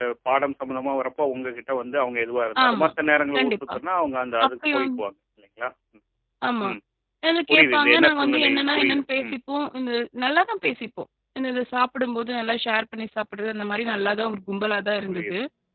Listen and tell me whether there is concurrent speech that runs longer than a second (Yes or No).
Yes